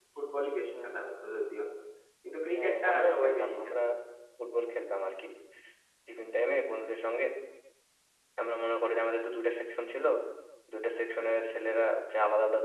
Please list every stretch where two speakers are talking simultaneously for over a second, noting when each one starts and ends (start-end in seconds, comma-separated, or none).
2.5-3.8